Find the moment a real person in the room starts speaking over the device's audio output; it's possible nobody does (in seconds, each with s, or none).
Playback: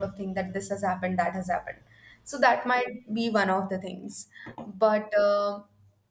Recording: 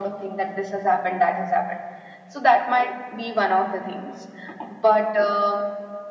none